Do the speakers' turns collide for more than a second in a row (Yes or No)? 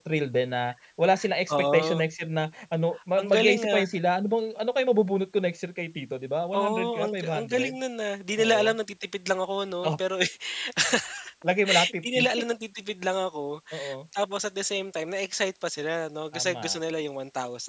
Yes